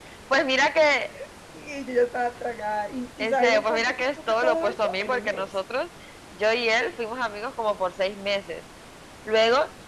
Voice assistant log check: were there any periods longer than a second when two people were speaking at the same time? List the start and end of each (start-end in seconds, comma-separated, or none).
3.2-5.5